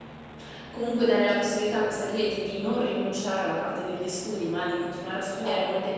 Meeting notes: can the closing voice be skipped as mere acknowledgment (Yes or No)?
Yes